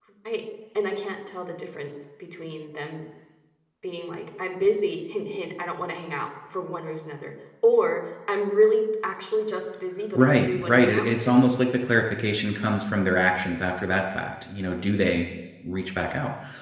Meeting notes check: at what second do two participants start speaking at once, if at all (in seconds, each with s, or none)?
10.2 s